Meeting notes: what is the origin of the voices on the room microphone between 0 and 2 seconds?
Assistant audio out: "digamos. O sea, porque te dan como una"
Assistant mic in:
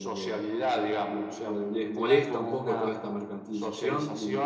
both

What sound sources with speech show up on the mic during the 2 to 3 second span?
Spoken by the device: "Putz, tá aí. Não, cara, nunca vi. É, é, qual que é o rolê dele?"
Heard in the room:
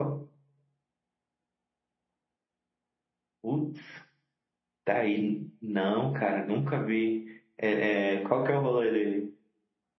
neither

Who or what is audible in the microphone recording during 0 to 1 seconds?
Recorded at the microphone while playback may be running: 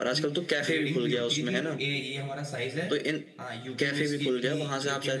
both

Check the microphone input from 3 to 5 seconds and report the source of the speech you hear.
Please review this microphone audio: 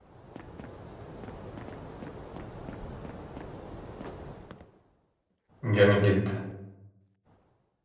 neither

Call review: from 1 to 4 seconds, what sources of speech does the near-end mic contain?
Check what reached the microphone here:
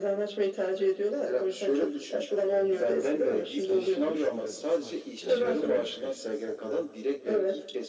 both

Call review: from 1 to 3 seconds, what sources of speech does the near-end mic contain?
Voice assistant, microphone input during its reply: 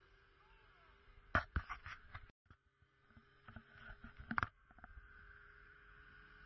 neither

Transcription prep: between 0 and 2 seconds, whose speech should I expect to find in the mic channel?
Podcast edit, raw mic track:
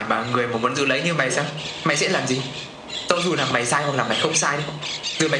echo only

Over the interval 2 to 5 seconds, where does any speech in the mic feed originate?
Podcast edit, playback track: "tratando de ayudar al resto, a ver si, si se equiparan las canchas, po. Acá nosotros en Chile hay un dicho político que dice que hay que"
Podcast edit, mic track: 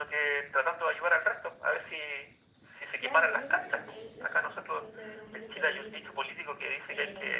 both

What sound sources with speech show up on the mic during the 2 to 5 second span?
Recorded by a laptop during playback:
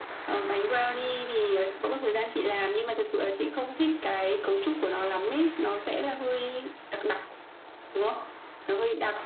echo only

